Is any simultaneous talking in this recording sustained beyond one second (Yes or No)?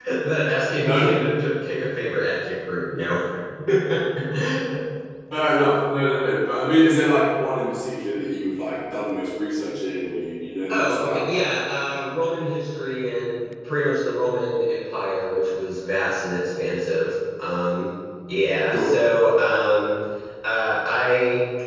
No